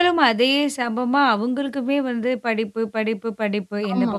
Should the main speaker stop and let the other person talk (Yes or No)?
No